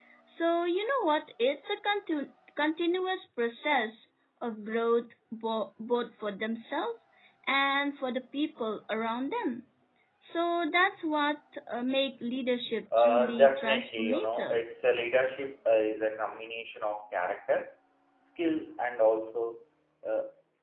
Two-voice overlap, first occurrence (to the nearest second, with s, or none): 13 s